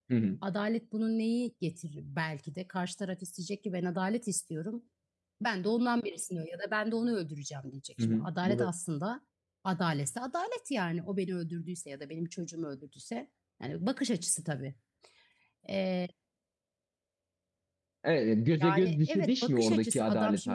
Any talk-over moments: Yes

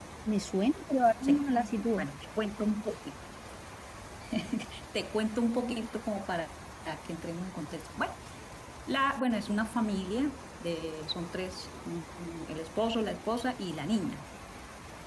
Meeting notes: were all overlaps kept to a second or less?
Yes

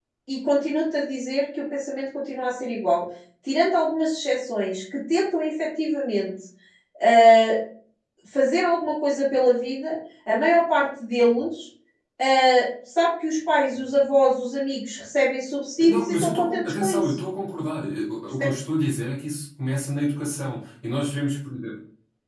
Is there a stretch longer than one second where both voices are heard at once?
Yes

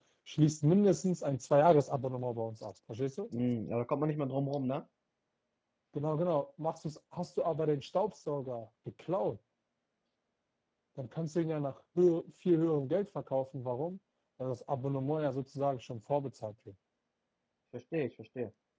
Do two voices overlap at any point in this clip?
No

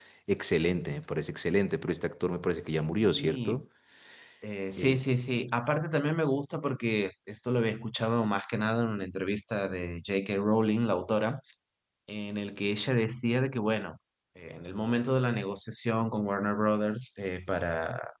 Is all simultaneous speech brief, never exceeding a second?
Yes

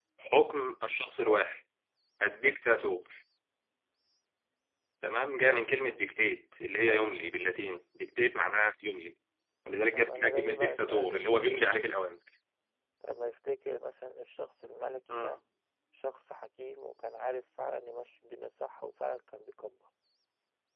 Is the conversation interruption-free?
No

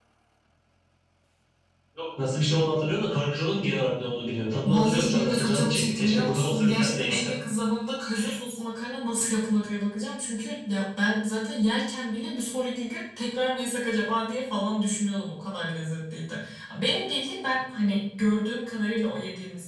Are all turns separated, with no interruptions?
No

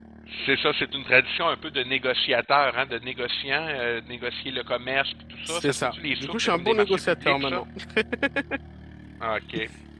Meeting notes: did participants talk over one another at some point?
Yes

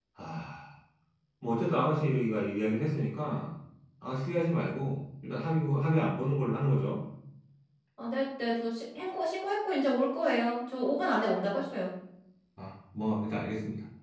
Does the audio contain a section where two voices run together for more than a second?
No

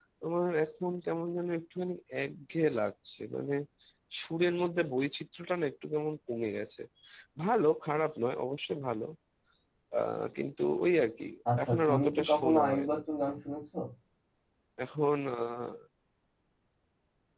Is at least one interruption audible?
Yes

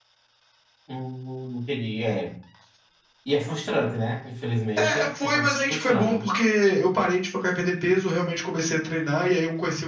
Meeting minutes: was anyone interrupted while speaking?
Yes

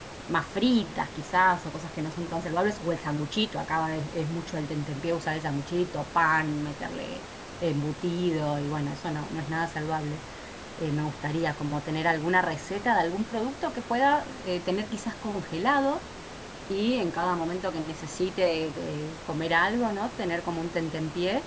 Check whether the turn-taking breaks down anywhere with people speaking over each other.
No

